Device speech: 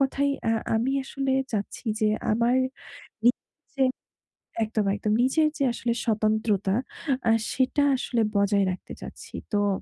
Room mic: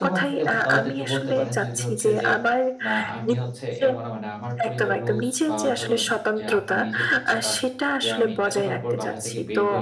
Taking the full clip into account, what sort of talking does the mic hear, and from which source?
both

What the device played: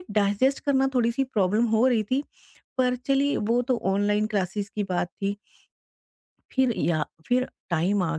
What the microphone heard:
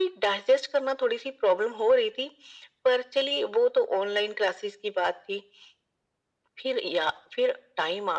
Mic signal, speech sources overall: echo only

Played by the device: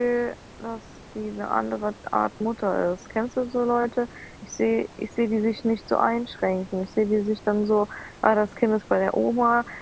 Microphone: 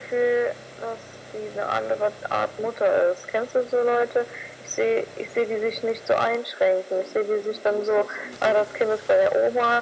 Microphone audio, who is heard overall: both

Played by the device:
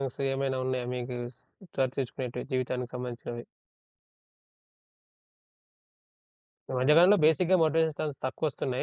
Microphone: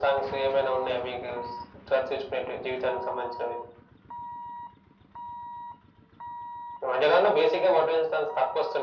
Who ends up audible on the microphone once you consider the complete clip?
echo only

